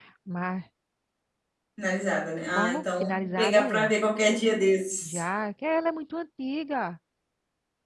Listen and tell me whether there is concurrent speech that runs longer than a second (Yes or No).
Yes